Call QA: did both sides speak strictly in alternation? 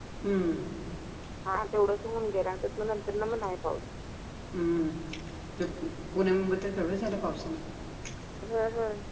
Yes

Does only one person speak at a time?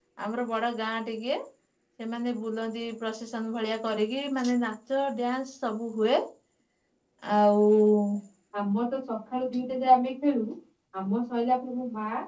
Yes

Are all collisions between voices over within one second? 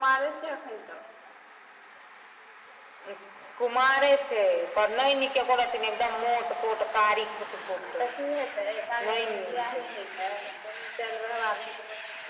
Yes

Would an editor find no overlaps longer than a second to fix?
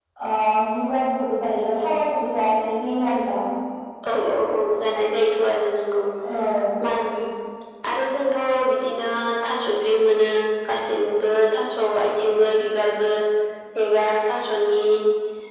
Yes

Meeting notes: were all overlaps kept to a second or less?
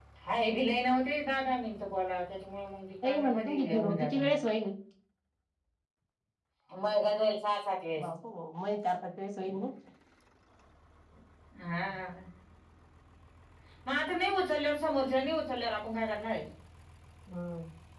No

